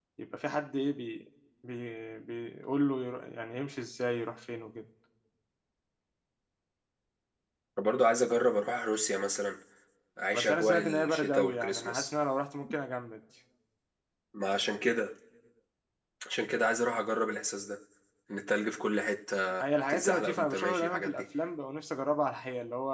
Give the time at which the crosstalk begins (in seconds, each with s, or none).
10.3 s